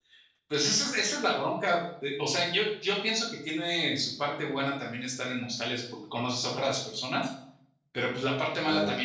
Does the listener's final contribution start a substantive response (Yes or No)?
No